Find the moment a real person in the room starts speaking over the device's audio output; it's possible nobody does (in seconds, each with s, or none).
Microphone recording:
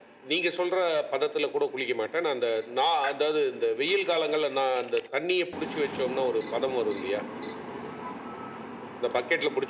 none